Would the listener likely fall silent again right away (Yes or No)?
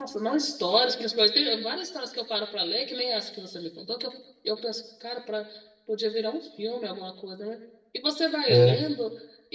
Yes